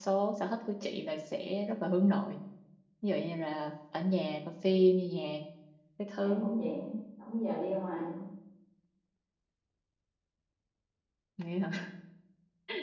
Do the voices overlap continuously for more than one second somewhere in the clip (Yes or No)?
No